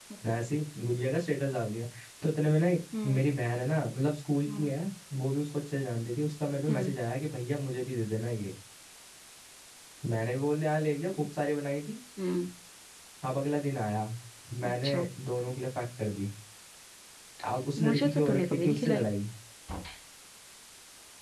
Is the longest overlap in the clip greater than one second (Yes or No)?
Yes